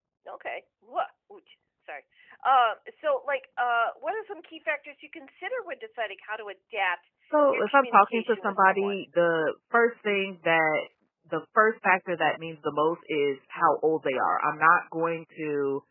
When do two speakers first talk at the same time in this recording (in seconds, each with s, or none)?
7.5 s